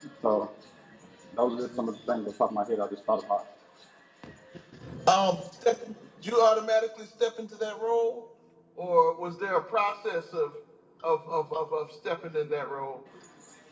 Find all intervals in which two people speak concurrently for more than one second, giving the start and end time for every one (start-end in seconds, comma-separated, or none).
none